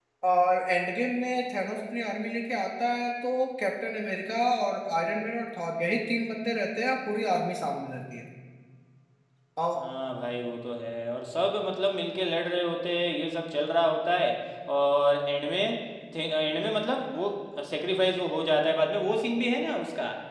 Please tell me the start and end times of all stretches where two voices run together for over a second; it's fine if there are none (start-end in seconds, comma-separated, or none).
none